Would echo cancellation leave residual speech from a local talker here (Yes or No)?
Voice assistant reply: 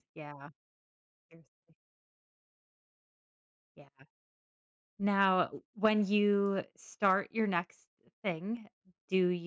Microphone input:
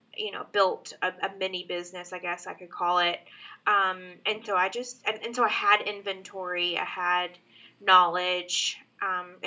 Yes